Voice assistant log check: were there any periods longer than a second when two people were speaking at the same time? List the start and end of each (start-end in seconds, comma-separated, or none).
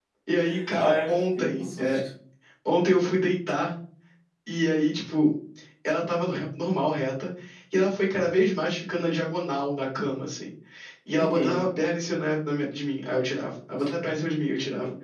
0.8-2.0